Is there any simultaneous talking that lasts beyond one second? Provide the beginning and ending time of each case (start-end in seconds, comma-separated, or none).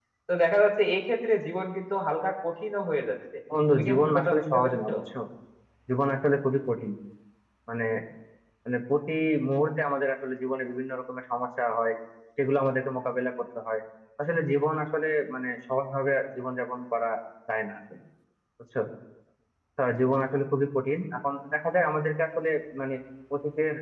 3.7-4.9